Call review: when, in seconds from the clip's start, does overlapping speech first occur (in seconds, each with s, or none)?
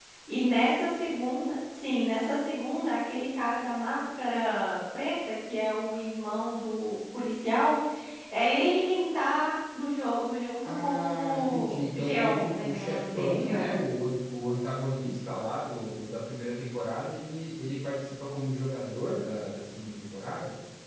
10.6 s